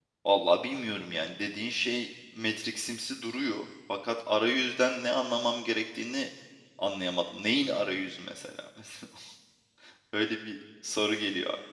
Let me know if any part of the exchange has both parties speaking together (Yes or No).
No